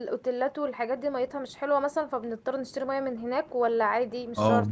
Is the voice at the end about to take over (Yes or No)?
Yes